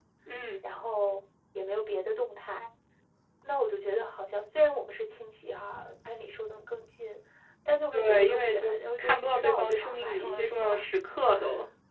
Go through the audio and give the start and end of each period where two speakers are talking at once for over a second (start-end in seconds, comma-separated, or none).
7.9-10.8